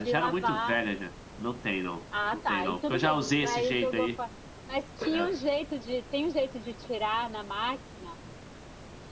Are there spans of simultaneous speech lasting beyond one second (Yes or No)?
Yes